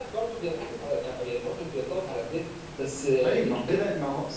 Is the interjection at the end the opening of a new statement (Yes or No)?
Yes